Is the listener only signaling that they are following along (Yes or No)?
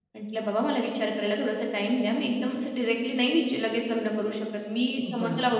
Yes